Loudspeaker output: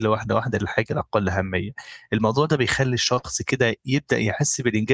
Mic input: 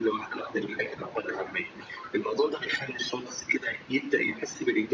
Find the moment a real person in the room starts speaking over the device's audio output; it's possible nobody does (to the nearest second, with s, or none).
none